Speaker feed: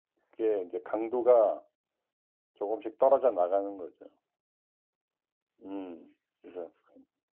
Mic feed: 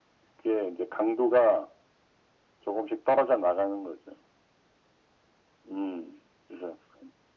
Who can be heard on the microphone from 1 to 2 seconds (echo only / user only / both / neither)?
echo only